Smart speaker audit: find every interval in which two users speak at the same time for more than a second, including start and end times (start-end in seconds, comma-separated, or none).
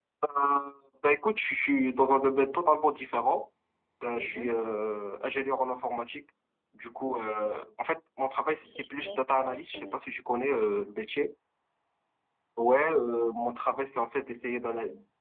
8.6-10.0